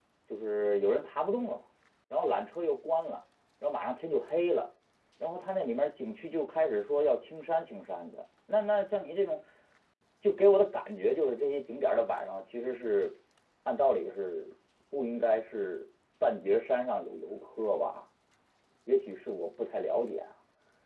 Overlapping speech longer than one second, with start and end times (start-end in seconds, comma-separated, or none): none